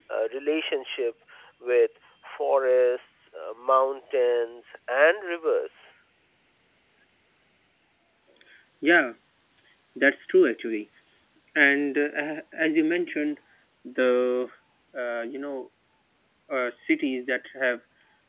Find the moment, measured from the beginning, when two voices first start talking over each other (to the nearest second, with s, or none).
none